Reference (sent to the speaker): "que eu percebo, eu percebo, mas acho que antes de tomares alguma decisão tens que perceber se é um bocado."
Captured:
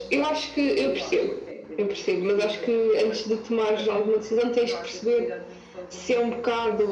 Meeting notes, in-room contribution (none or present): present